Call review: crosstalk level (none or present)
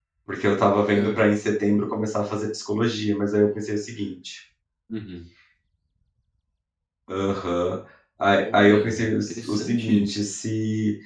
present